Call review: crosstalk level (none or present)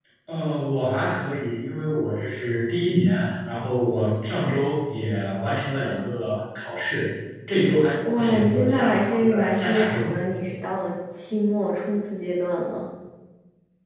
present